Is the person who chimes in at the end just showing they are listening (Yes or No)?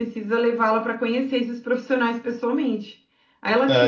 Yes